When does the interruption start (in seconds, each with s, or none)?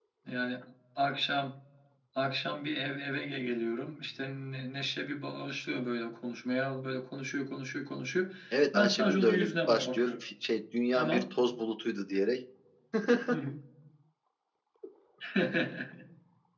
8.7 s